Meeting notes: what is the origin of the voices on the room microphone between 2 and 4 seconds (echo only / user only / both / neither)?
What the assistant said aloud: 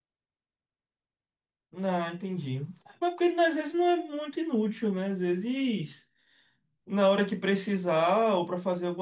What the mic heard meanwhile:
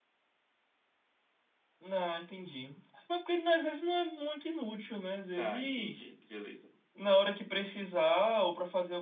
echo only